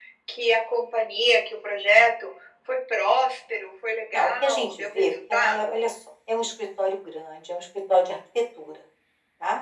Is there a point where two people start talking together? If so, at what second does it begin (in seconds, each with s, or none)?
4.1 s